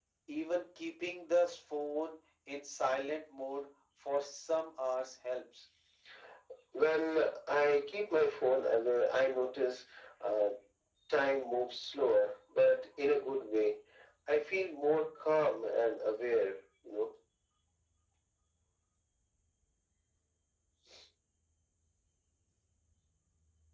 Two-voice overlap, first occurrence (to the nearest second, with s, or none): none